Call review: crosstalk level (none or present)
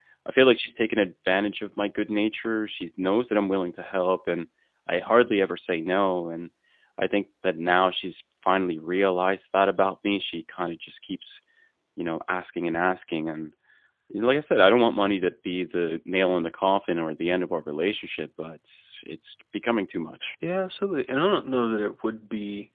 none